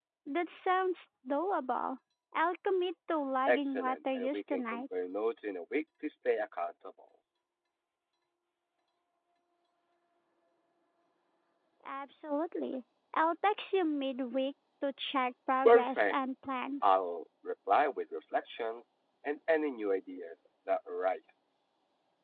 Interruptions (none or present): present